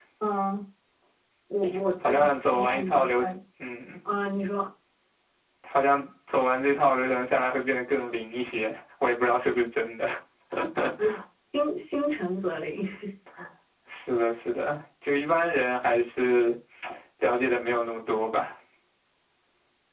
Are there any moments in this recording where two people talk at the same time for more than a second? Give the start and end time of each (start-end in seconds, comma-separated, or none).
2.0-3.3